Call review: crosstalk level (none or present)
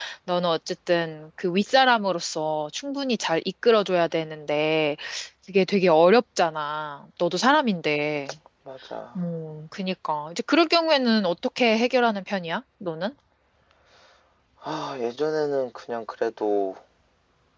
none